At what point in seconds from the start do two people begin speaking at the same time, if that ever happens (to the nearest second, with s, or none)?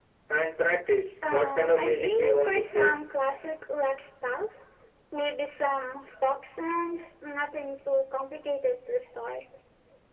1 s